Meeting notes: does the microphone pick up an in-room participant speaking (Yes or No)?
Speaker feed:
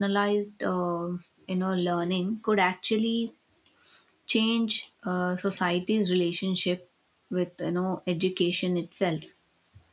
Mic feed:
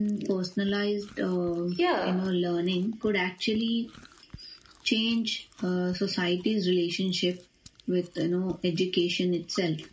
Yes